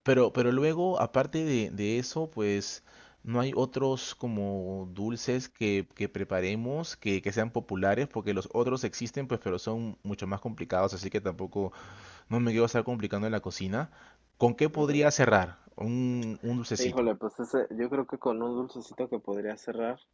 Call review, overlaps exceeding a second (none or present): none